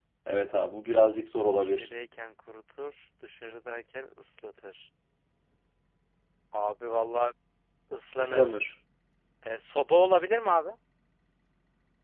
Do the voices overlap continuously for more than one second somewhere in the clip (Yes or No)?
No